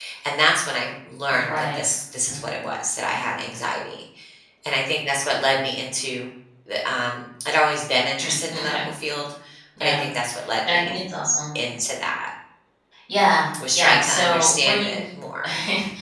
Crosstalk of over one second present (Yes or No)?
Yes